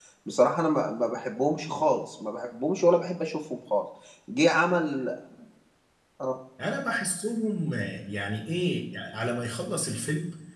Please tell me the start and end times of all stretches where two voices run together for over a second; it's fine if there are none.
none

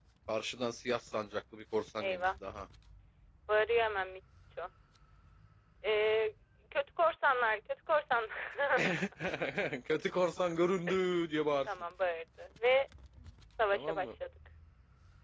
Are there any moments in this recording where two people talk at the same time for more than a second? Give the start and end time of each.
none

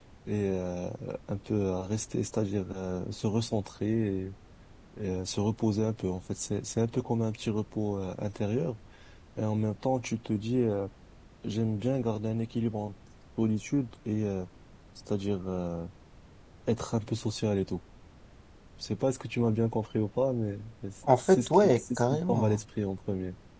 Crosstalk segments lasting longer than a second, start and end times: 21.1-22.6

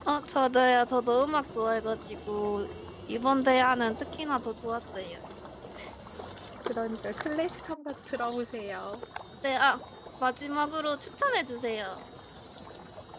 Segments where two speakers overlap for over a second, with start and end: none

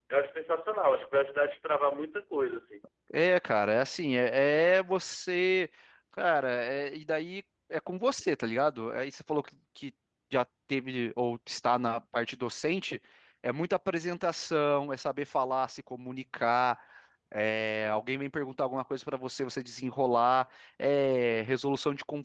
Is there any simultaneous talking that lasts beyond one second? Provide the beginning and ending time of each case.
none

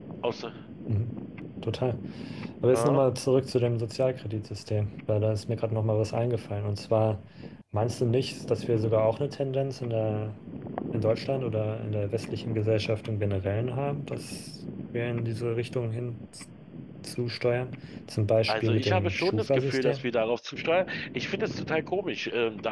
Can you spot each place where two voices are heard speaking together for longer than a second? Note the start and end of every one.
18.5-20.1

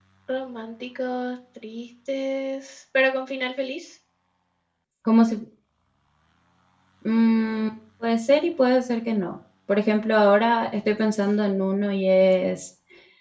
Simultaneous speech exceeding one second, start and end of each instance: none

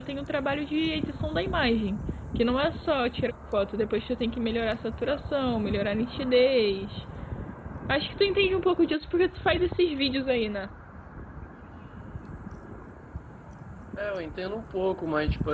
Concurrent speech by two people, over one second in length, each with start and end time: none

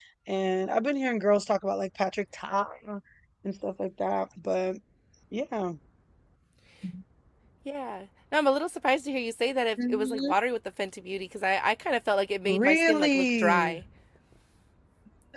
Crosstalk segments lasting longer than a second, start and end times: 12.4-13.8

